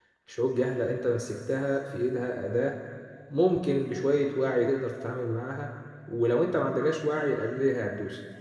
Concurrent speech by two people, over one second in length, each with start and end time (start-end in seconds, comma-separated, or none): none